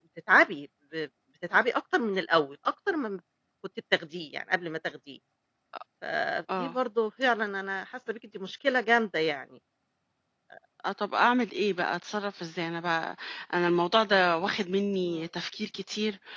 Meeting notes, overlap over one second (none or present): none